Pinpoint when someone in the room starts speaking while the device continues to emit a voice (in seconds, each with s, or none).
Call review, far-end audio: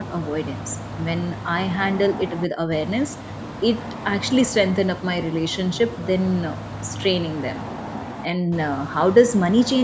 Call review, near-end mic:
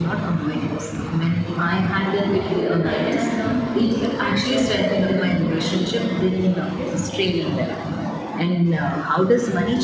2.4 s